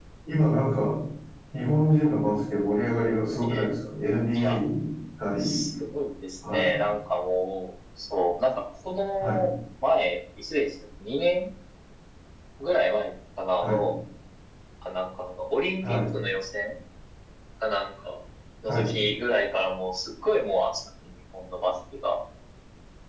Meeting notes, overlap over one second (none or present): none